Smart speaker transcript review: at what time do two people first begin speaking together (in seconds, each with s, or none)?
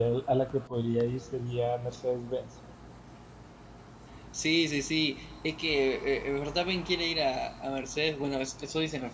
none